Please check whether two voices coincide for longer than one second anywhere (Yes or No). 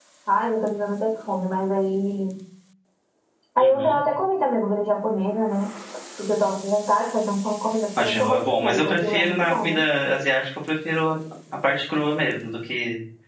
Yes